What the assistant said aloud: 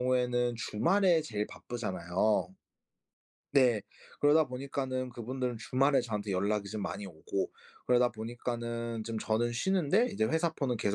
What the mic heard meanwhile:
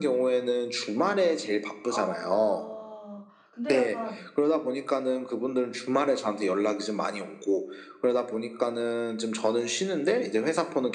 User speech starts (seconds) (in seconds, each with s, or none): 1.9 s